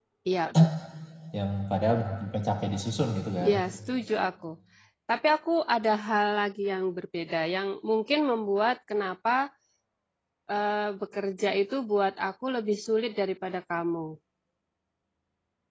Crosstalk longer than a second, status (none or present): none